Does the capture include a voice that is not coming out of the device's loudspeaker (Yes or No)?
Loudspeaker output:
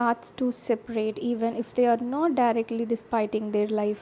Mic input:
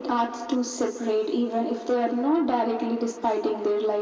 No